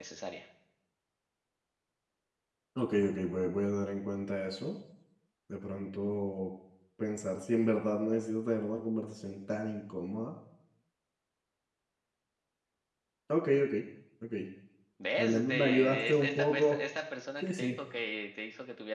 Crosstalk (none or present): present